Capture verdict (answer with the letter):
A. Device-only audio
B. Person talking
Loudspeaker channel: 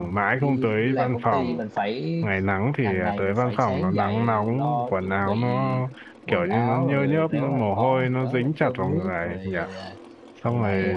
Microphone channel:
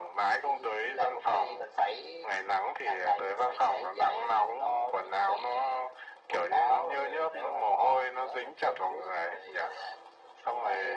A